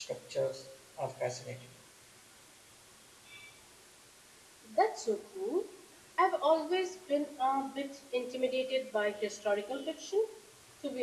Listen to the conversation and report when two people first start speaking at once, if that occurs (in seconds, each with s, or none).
none